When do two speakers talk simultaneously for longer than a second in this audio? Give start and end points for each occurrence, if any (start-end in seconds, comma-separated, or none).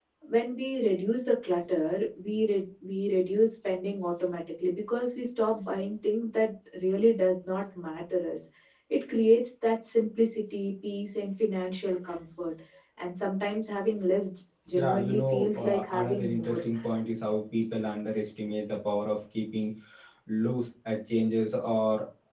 14.7-16.6